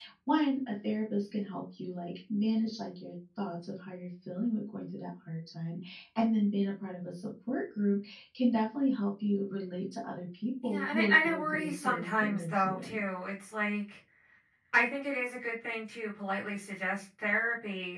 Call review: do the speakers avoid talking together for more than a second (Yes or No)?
No